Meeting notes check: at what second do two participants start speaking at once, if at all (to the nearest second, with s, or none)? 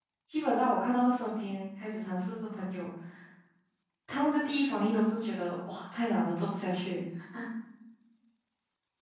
none